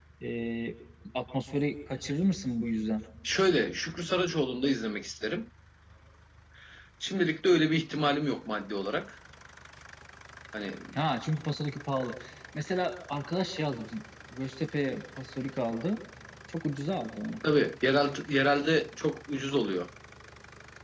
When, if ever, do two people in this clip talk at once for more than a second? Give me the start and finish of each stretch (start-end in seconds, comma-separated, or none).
none